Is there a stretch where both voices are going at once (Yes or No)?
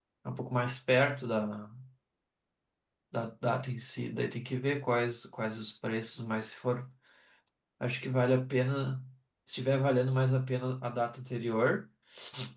No